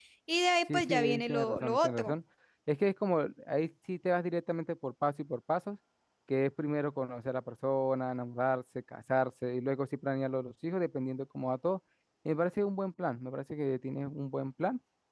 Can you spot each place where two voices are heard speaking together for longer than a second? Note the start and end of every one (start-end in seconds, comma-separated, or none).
0.7-2.1